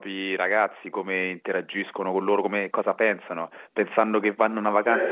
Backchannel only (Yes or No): Yes